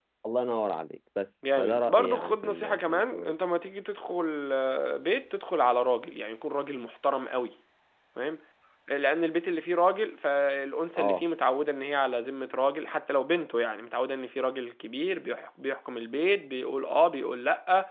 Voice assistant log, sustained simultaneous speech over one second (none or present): present